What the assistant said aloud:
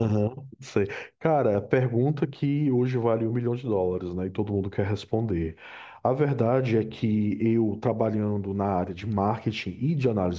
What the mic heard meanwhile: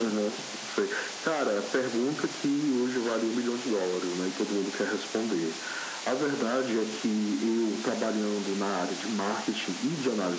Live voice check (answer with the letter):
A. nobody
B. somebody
A